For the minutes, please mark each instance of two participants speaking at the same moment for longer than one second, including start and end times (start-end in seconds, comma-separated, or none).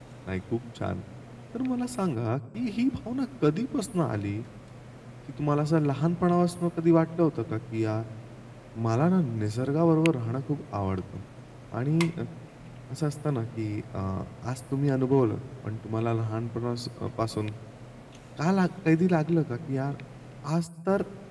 none